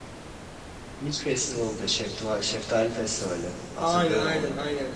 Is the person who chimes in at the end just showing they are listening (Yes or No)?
No